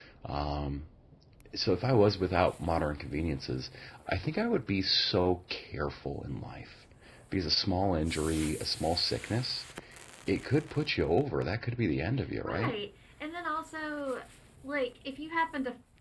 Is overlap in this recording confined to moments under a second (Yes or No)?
Yes